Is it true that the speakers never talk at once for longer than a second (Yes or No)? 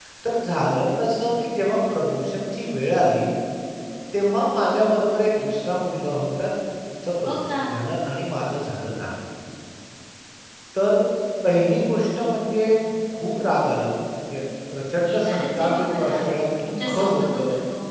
No